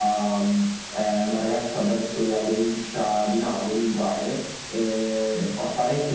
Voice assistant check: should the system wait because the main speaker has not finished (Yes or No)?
Yes